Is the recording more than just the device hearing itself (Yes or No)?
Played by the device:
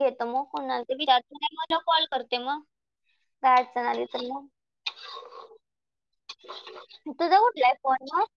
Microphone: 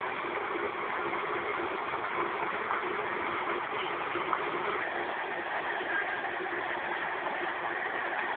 No